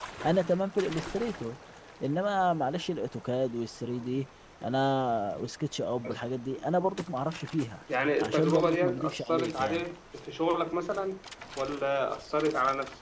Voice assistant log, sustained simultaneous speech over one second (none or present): present